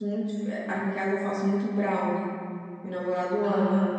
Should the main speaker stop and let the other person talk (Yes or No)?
No